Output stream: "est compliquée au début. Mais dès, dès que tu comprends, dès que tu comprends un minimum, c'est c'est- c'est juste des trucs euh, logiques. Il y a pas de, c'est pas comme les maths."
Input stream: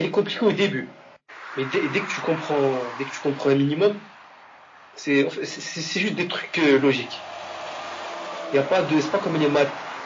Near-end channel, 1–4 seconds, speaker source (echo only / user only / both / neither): echo only